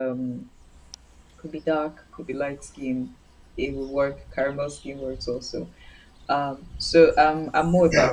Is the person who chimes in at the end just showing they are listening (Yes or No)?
No